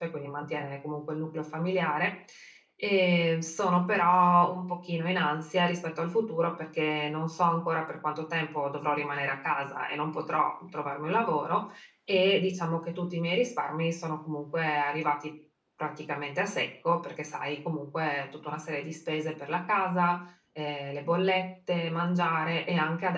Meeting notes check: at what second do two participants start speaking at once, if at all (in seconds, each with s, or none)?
none